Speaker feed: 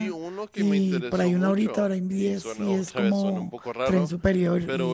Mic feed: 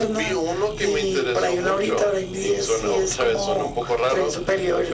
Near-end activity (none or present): none